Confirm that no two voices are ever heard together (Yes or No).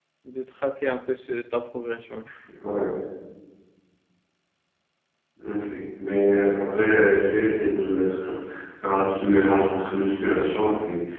Yes